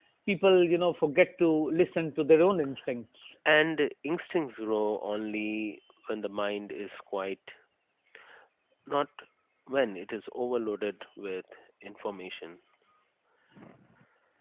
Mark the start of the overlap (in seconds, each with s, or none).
none